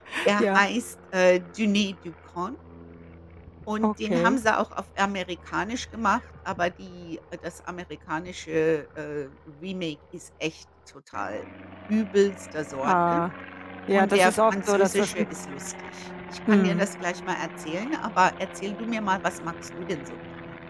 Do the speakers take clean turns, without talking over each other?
No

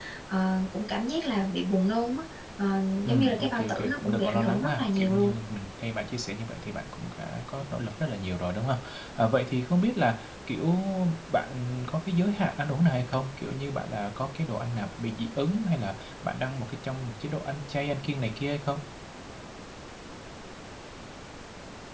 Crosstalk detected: Yes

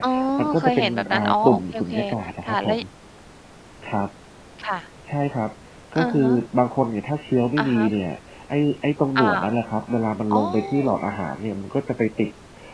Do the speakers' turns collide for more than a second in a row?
Yes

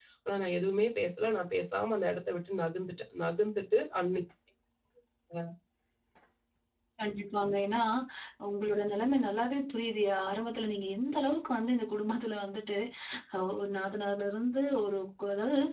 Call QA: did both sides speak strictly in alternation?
Yes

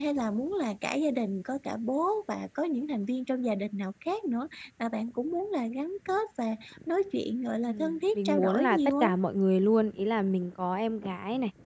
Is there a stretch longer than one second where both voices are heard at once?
Yes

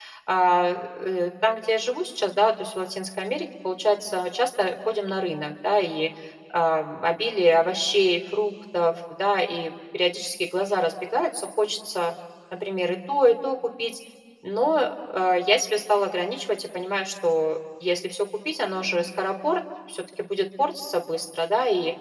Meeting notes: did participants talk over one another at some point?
No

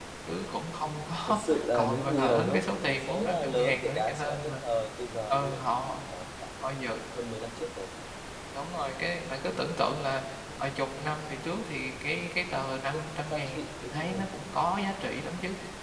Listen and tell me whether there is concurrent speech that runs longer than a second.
Yes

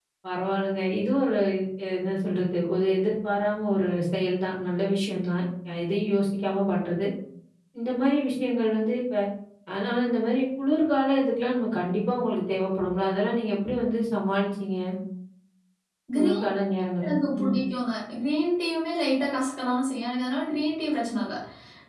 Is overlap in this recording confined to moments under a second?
Yes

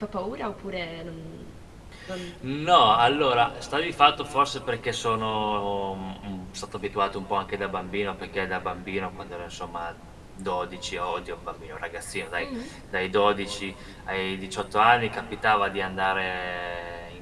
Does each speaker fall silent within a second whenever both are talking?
Yes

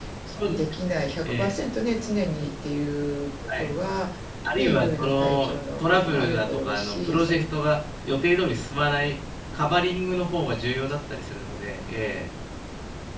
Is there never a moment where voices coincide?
No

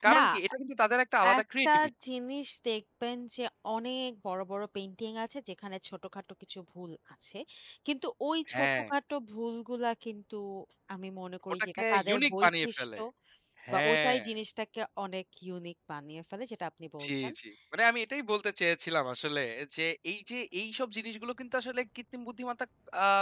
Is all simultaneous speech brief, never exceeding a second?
No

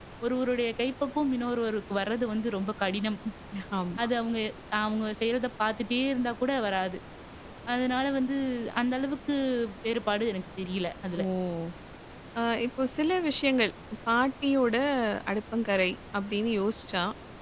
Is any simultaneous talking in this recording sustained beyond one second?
No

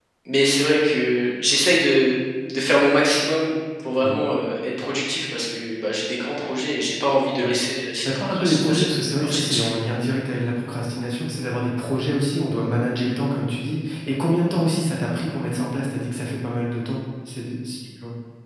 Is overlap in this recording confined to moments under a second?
No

